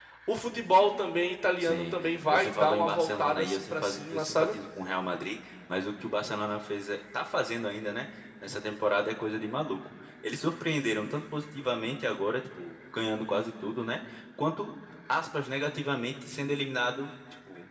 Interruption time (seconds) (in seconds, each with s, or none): 1.6 s